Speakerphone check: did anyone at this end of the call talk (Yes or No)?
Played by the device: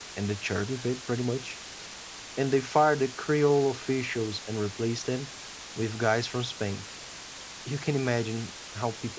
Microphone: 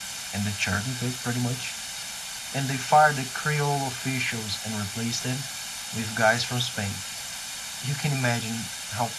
No